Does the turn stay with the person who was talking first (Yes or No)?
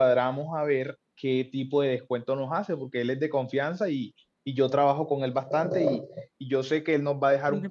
Yes